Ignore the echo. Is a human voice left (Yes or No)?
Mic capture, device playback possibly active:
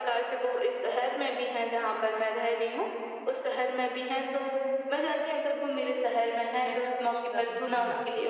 Yes